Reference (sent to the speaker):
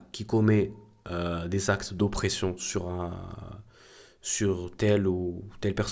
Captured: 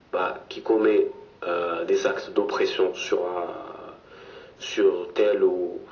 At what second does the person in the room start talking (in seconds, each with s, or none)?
none